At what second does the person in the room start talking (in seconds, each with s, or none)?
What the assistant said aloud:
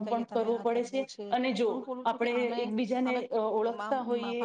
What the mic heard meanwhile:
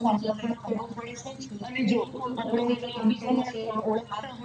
2.1 s